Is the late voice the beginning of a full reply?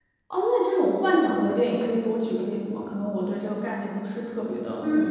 Yes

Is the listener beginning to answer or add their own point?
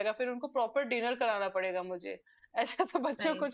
No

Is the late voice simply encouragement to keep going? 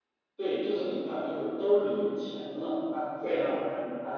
Yes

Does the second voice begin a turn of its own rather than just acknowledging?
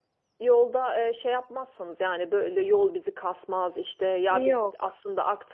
No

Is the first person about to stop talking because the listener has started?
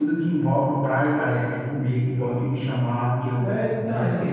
Yes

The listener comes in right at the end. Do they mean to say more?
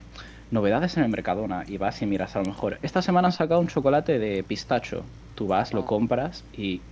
No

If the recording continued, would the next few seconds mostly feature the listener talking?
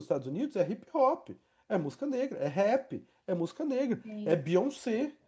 No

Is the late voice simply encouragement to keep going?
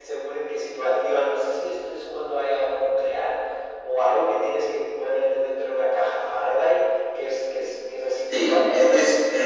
No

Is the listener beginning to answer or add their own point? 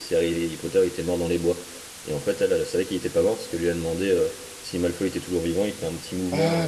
Yes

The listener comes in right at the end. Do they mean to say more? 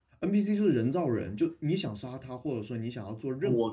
No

